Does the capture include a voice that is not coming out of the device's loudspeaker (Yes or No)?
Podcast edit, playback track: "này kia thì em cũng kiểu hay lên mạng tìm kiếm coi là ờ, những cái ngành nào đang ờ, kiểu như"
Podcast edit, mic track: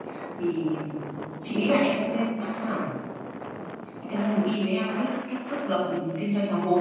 Yes